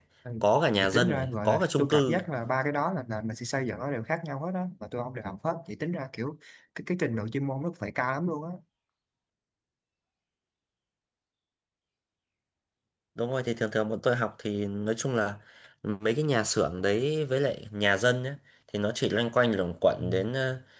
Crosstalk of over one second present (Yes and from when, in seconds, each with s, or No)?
Yes, from 0.8 s